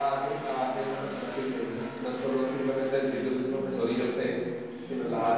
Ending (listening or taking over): listening